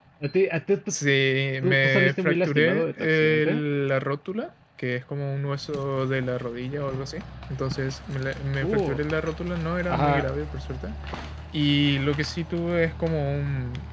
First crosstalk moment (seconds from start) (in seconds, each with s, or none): 1.6 s